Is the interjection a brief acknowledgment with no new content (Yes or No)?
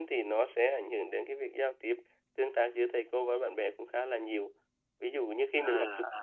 Yes